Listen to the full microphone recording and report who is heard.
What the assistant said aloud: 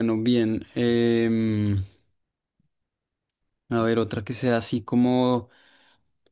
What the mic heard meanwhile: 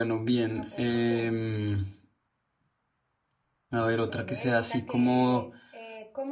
both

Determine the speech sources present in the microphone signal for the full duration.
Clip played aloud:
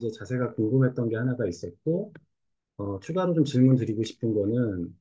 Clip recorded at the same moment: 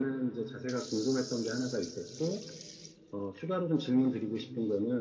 echo only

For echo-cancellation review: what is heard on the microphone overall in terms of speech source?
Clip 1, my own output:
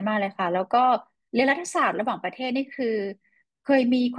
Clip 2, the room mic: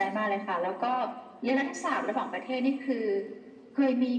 echo only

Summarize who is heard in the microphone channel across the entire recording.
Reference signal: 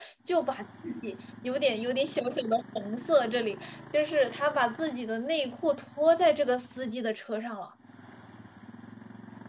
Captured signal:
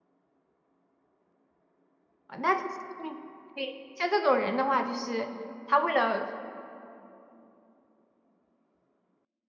user only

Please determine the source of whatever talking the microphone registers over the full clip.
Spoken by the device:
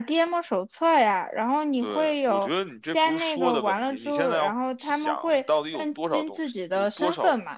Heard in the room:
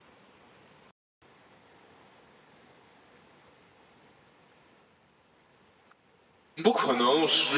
user only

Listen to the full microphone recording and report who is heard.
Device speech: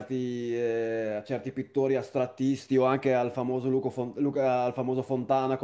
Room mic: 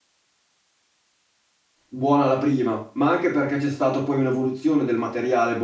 user only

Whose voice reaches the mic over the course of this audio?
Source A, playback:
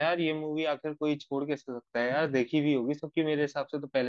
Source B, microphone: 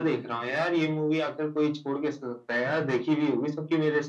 echo only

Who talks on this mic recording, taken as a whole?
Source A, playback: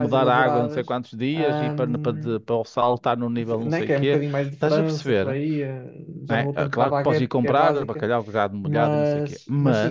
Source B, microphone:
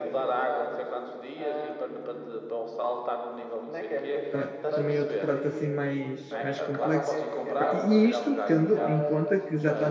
both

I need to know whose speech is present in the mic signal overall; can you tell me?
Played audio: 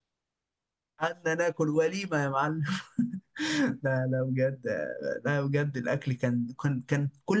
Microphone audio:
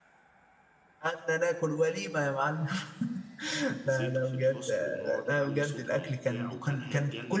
both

